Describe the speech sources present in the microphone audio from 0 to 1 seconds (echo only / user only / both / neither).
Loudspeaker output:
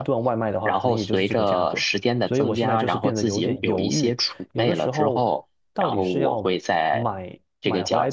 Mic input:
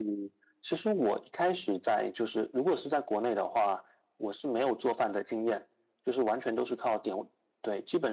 user only